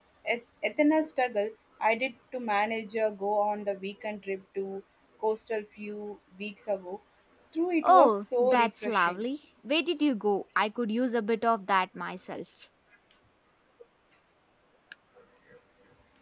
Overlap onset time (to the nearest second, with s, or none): 8 s